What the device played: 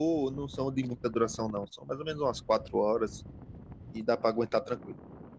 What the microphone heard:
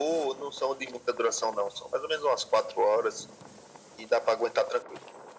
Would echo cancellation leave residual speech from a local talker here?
No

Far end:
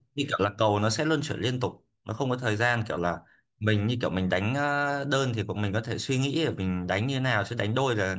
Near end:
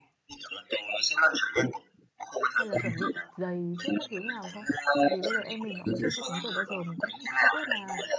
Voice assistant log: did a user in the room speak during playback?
Yes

